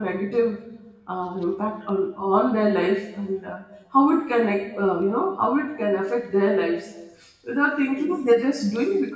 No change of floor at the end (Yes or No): Yes